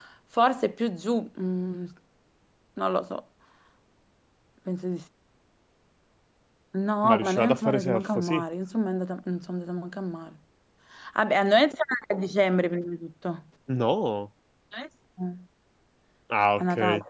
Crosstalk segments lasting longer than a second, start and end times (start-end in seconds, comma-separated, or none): 7.0-8.4